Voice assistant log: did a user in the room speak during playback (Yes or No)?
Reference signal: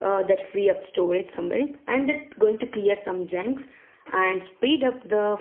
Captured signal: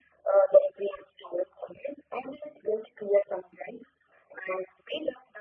No